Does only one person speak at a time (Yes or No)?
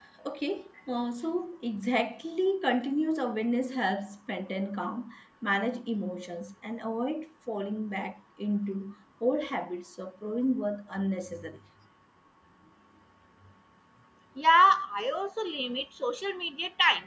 Yes